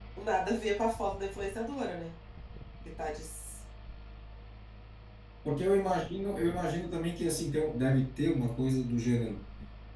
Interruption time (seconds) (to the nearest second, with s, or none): none